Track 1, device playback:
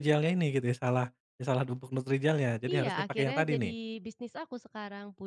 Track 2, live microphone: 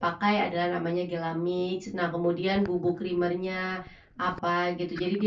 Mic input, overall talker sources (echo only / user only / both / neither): user only